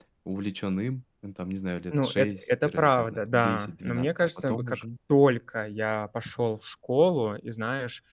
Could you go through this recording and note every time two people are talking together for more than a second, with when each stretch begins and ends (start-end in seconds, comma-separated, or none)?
1.9-4.8